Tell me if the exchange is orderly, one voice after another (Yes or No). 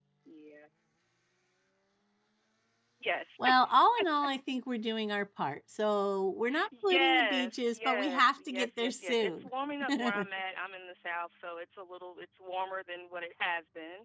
No